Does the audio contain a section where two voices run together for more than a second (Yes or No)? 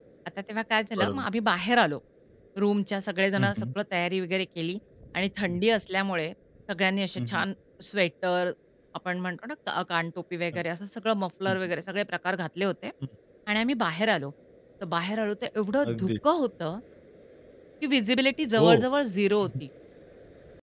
No